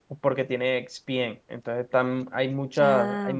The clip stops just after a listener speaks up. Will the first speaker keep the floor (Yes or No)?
Yes